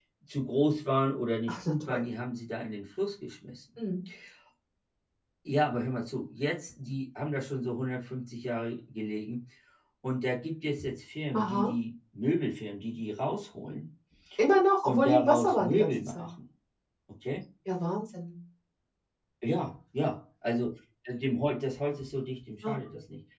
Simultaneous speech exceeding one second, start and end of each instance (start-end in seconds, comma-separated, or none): 14.8-16.3